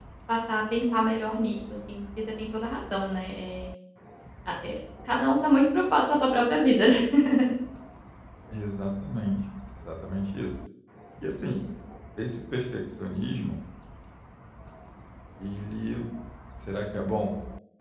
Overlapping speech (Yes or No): No